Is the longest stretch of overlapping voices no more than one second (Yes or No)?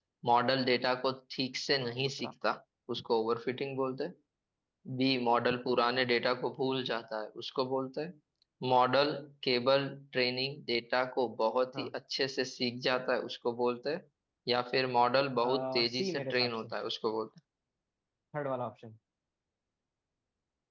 No